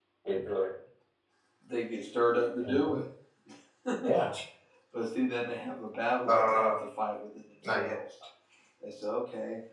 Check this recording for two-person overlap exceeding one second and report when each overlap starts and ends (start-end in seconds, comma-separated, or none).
none